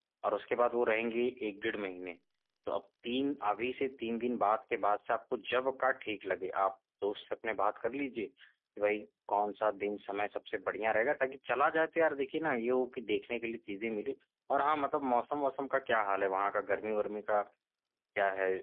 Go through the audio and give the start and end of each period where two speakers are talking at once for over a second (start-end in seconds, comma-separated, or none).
none